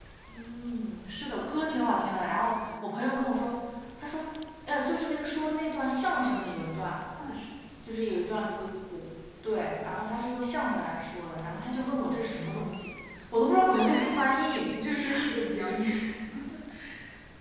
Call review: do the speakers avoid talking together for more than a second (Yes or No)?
Yes